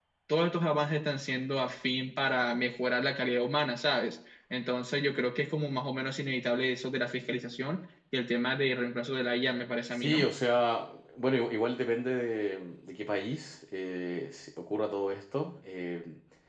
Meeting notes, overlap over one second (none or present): none